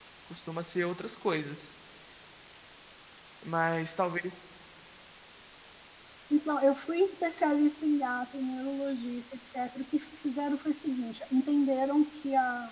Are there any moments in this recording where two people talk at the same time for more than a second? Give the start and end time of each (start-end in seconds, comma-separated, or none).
none